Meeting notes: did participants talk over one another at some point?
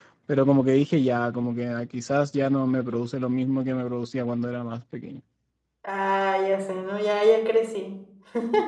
No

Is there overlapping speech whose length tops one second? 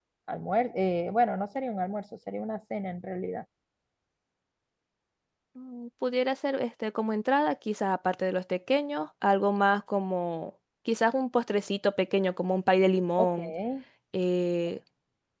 No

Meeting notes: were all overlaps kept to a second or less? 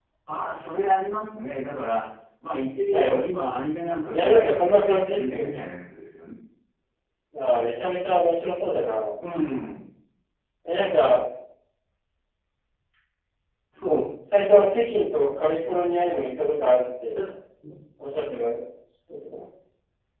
No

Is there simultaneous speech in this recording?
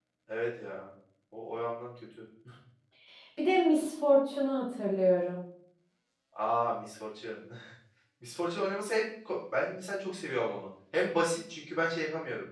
No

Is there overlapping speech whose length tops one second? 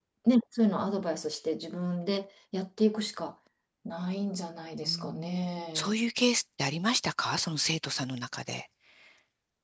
No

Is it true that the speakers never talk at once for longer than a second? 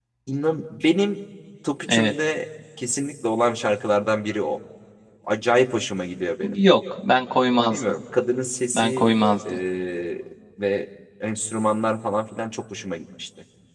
Yes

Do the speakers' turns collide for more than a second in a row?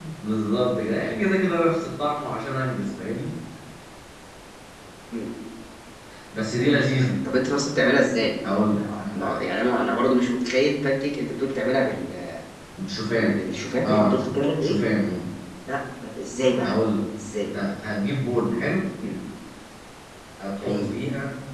No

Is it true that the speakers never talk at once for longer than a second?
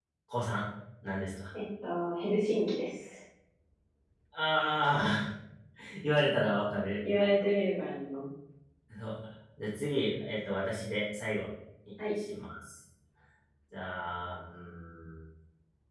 Yes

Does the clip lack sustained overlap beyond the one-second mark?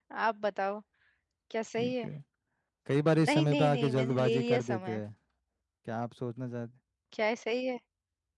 No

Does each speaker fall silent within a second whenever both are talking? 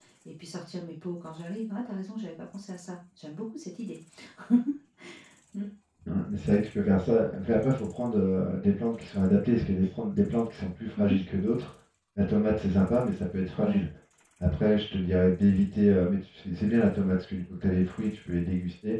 Yes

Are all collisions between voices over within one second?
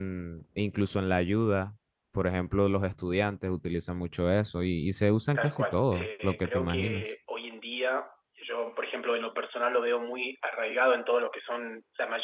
No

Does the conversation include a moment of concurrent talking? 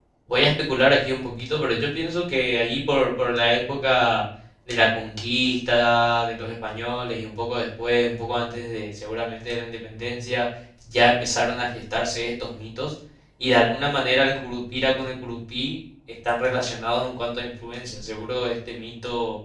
No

